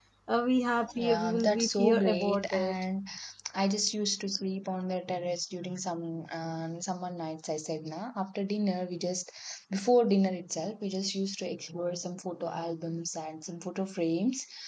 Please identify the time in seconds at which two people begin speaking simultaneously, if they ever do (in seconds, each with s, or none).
0.9 s